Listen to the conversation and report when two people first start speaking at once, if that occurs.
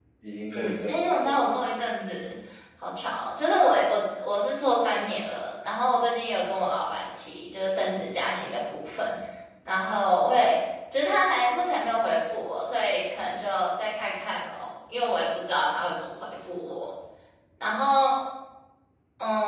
0.5 s

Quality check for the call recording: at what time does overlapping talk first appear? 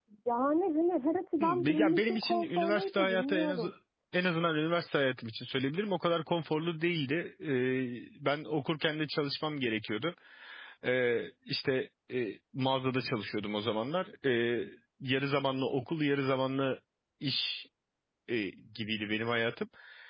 1.4 s

